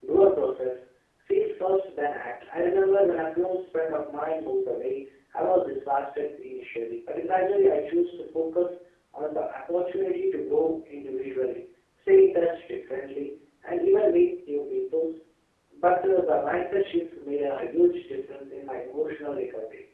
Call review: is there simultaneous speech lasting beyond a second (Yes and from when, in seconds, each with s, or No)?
No